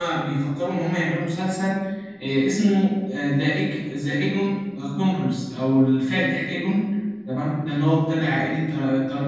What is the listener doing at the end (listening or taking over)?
listening